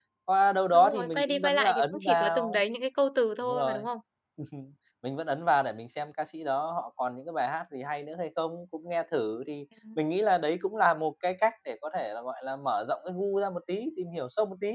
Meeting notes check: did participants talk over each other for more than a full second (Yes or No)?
Yes